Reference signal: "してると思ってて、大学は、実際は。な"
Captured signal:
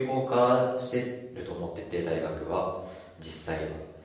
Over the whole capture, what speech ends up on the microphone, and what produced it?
echo only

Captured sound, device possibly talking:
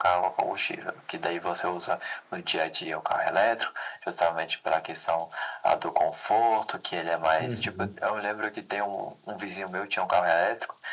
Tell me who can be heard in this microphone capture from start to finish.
both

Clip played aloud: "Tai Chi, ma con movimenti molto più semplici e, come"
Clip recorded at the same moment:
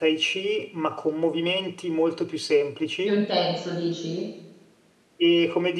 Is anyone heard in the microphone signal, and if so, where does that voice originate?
both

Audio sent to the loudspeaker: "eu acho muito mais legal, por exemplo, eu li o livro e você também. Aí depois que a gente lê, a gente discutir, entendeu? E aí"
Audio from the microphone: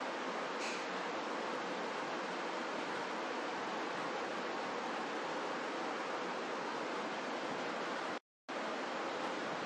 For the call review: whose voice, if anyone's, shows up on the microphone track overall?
neither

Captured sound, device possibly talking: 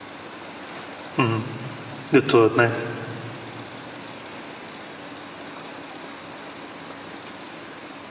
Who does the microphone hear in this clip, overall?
user only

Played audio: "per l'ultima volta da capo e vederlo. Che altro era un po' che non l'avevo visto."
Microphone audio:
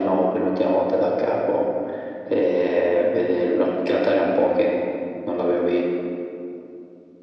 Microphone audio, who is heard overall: echo only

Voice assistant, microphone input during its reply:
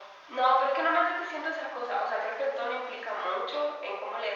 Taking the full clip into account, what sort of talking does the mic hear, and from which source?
echo only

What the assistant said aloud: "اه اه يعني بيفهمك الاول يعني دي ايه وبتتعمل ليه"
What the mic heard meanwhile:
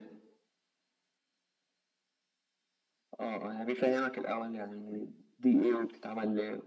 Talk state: echo only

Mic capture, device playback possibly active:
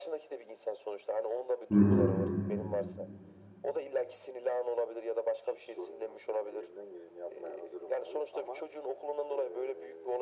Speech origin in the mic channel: both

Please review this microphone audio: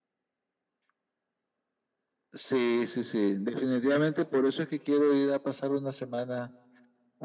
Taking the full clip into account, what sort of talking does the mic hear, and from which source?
echo only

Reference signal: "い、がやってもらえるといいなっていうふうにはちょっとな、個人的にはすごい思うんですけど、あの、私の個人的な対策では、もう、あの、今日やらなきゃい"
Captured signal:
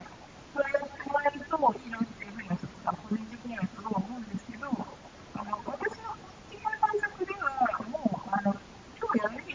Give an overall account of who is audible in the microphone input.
echo only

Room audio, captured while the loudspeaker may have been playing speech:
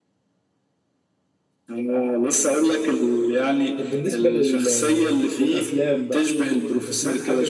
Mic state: both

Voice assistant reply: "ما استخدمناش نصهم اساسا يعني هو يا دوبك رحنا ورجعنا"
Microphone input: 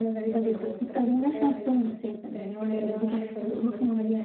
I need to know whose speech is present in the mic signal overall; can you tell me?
both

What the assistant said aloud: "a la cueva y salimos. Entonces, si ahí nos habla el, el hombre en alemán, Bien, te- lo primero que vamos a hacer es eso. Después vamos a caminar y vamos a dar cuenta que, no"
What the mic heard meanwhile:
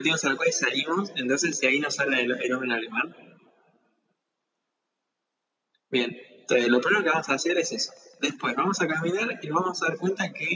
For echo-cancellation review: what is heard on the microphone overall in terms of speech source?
echo only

